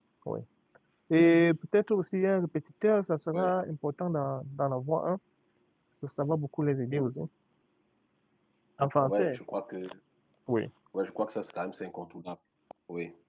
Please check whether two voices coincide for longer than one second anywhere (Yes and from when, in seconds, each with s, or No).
No